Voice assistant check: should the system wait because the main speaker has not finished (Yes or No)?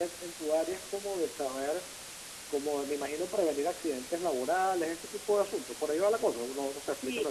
No